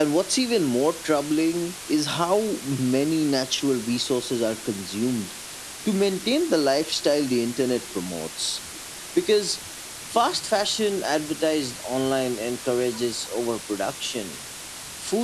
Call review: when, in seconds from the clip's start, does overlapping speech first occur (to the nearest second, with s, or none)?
none